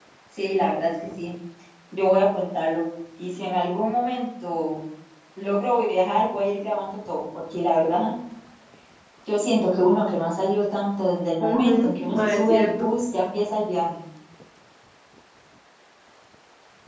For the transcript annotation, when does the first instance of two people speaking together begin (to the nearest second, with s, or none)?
11 s